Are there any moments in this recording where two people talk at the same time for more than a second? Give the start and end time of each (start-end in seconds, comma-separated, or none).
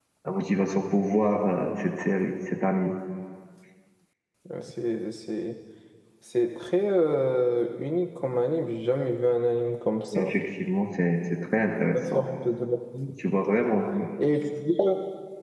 none